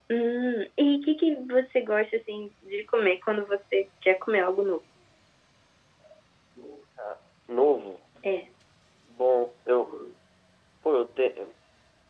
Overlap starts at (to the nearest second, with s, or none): none